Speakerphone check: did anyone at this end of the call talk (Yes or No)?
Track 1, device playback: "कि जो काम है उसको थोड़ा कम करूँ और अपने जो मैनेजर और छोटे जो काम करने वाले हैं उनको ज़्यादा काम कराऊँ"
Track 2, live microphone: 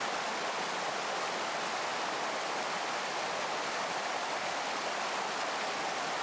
No